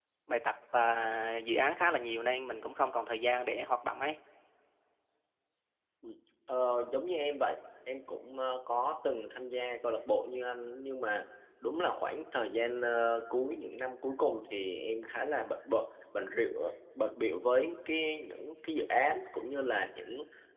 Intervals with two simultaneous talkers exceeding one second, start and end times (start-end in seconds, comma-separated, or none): none